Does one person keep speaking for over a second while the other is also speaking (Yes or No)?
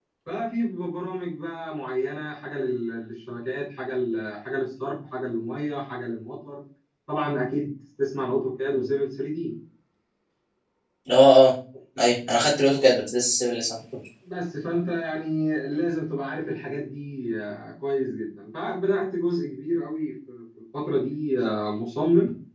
No